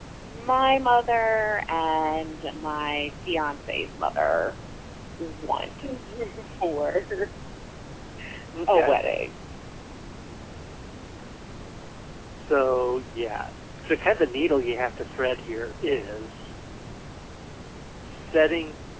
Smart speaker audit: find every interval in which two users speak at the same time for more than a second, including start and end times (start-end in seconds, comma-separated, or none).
none